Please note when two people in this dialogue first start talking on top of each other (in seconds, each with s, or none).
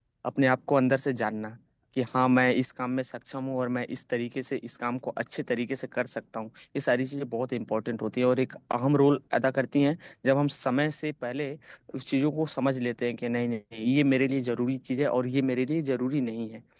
none